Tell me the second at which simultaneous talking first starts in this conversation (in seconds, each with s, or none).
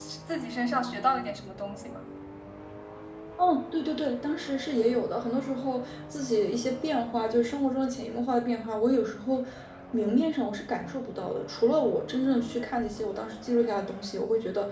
none